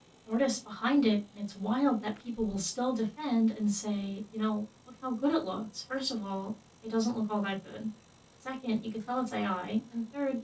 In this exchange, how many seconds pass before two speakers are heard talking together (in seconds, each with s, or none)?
none